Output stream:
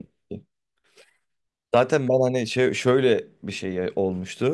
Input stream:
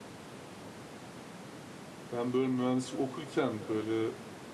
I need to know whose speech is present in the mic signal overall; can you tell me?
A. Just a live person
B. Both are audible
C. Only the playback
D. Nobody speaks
A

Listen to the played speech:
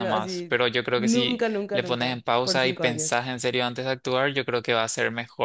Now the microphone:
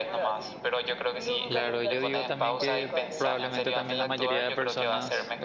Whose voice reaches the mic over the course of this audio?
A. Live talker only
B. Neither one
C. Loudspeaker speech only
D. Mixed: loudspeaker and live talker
D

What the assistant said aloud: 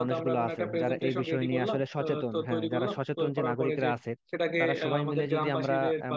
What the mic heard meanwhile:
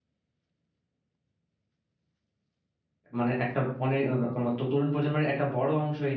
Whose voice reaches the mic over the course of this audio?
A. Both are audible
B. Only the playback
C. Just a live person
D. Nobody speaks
C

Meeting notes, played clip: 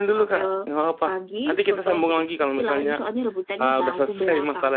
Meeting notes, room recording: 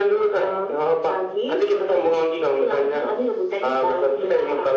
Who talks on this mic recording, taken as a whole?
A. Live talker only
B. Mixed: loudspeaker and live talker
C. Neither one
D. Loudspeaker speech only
D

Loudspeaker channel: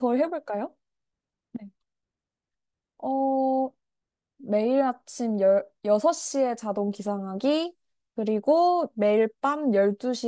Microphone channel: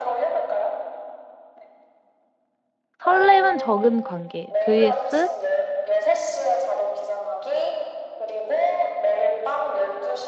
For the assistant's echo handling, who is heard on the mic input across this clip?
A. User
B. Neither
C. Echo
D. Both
D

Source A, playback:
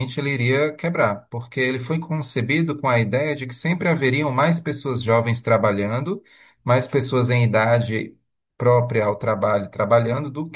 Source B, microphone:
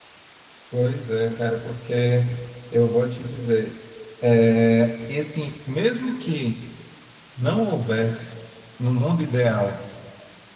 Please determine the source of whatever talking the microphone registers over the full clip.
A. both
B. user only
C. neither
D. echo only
B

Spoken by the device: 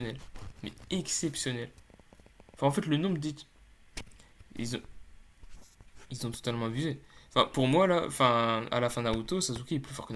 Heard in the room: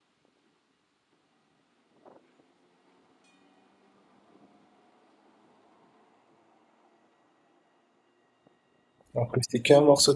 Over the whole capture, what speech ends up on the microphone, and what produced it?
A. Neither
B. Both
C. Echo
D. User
D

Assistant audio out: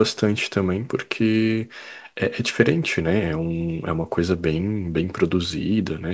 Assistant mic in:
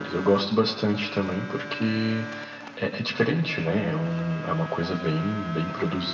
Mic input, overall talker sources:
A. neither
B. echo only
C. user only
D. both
B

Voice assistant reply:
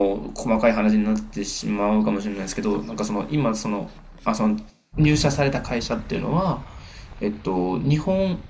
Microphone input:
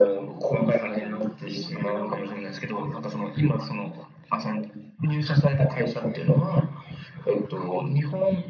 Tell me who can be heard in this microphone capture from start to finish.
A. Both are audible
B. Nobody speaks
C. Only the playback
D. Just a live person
A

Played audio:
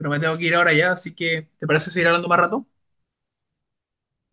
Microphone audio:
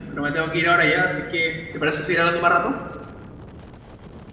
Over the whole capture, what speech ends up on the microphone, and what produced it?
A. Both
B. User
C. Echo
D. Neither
C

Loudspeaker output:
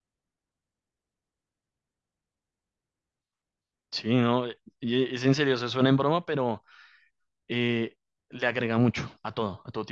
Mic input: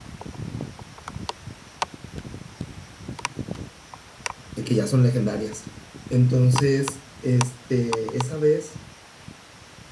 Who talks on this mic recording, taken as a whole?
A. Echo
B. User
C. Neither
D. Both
B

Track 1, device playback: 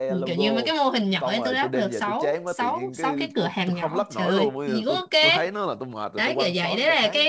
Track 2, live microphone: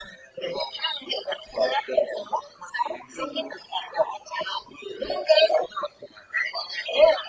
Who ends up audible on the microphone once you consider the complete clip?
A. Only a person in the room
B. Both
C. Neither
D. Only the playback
D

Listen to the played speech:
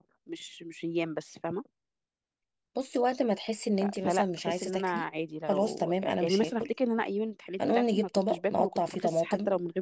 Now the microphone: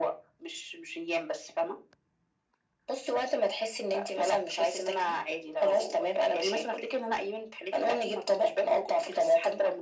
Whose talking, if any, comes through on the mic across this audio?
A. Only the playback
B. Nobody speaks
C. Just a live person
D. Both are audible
A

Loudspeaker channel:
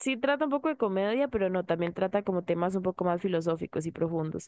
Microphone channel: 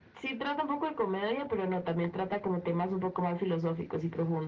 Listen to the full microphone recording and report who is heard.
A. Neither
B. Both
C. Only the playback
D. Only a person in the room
C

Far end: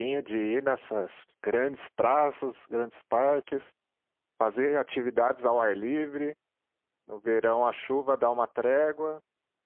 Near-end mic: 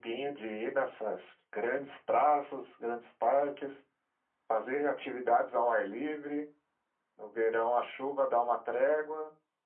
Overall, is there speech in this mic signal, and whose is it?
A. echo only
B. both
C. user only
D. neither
A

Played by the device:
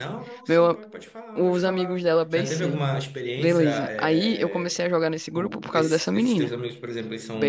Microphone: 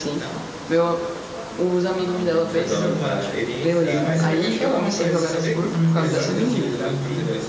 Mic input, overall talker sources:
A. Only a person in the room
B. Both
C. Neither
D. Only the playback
B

